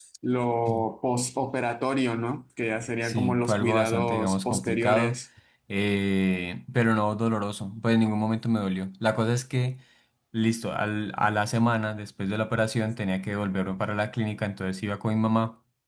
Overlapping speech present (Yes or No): Yes